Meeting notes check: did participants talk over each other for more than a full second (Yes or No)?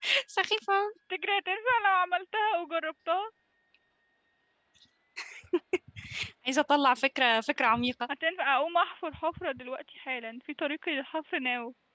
No